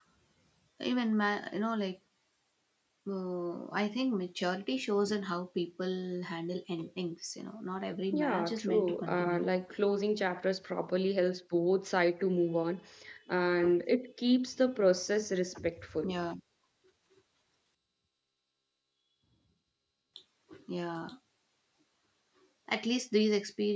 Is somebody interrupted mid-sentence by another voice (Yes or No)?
Yes